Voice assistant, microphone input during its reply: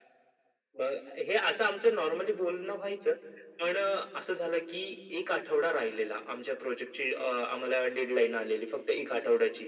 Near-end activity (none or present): none